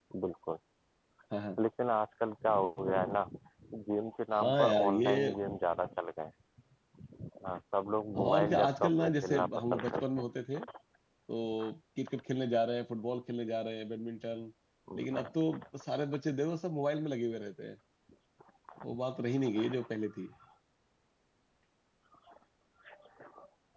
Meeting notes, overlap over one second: present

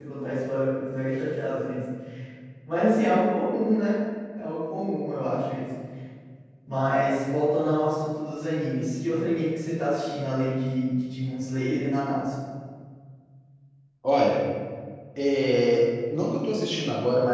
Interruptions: none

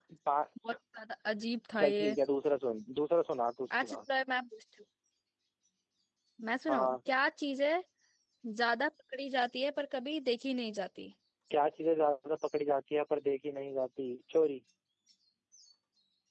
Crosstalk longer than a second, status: none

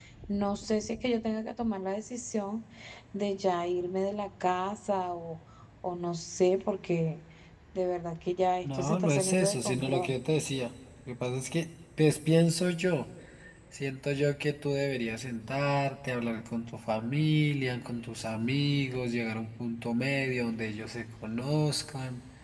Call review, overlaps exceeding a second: present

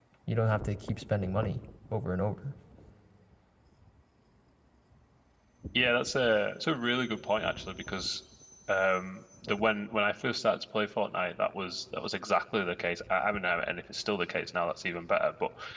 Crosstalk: none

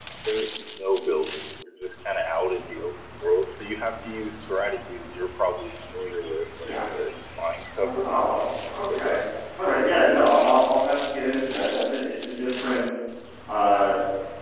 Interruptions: present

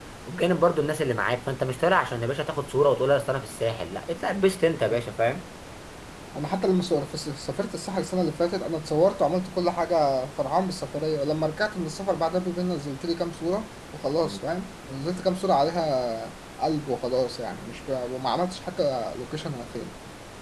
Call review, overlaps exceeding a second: none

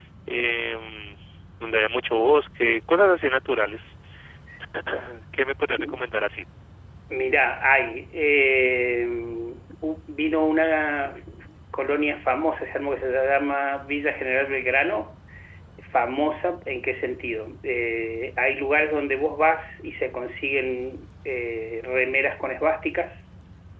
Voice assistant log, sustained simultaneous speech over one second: none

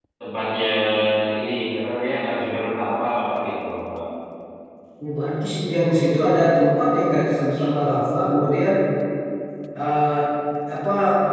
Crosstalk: none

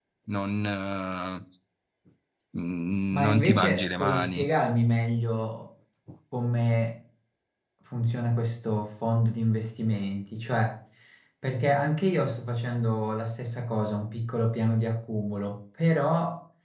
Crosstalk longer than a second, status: present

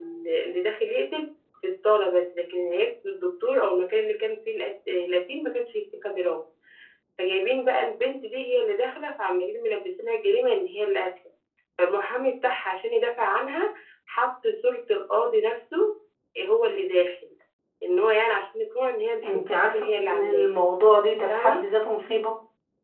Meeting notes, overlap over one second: present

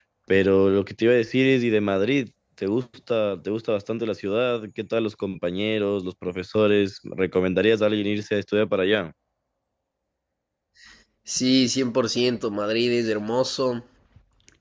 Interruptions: none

